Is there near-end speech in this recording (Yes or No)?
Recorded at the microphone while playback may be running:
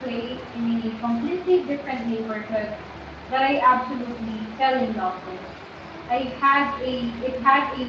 Yes